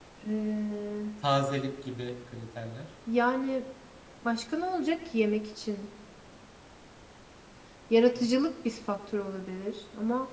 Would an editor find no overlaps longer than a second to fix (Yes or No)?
Yes